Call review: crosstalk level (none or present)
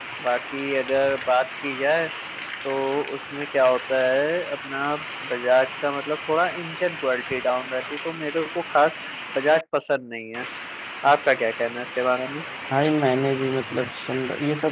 none